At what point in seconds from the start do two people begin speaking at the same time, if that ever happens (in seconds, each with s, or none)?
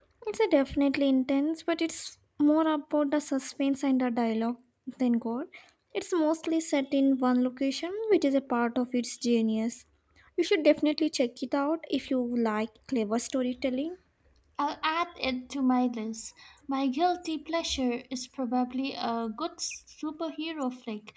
none